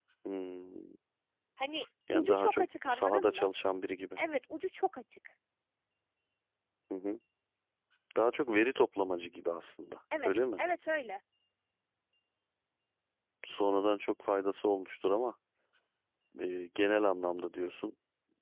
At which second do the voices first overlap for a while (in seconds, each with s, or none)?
2.1 s